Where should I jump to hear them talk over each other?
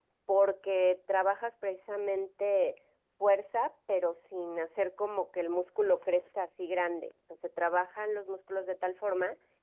none

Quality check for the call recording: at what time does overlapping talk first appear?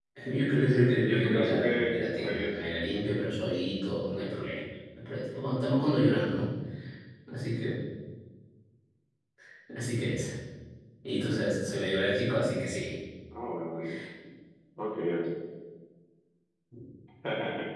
0.6 s

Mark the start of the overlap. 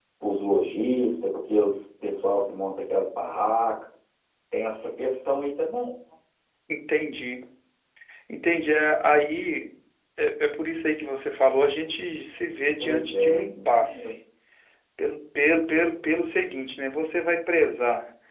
12.8 s

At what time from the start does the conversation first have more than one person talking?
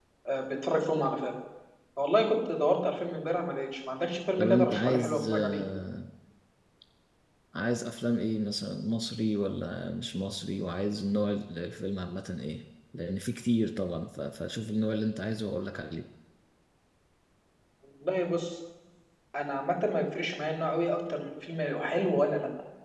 4.4 s

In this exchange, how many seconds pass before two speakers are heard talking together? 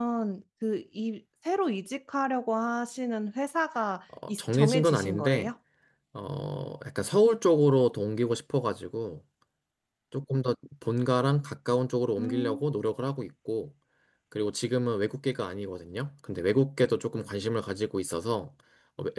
4.3 s

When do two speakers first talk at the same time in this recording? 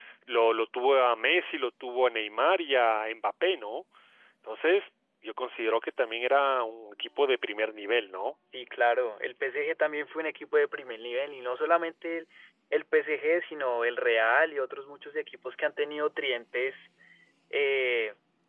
none

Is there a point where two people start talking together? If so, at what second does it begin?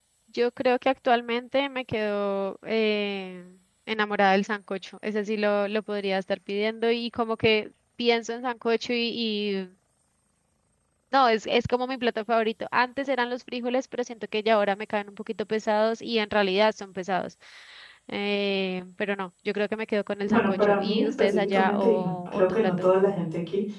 20.2 s

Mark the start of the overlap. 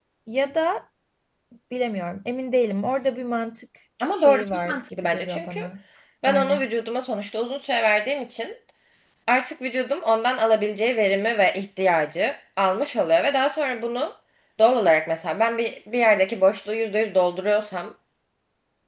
4.2 s

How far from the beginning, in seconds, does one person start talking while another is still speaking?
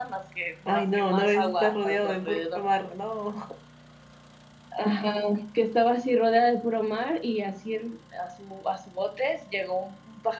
0.7 s

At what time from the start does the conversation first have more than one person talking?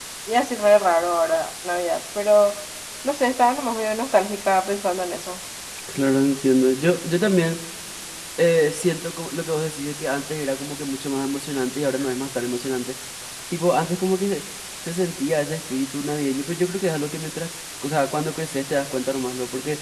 none

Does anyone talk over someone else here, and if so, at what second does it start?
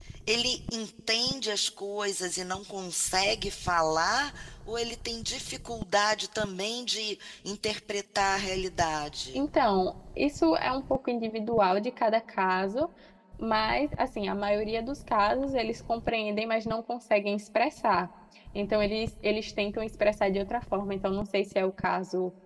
none

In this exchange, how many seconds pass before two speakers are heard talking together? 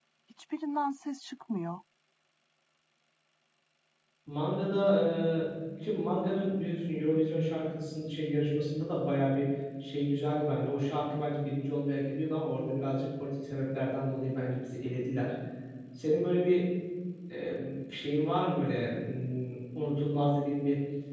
none

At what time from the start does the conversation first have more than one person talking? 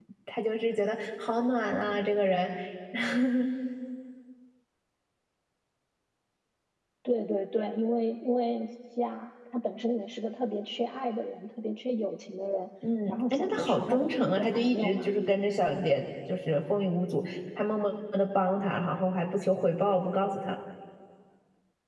13.1 s

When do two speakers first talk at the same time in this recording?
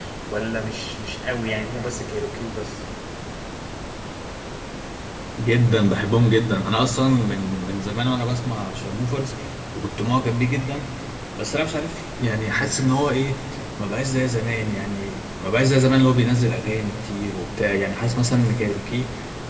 none

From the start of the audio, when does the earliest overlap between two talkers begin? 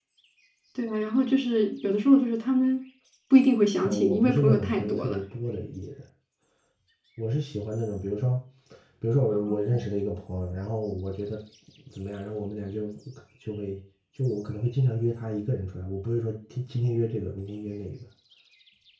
3.8 s

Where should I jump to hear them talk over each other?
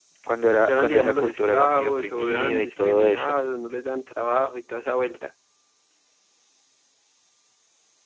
0.7 s

